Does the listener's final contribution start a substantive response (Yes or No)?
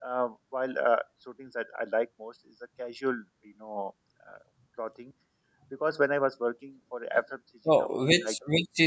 Yes